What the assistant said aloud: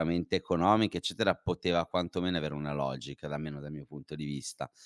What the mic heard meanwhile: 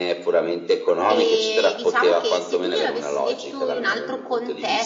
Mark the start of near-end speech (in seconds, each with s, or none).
1.1 s